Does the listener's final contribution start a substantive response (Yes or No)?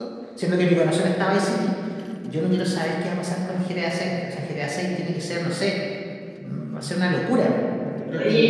Yes